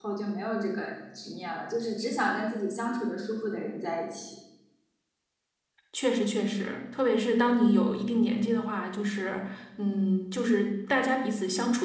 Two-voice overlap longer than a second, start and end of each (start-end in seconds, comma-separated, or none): none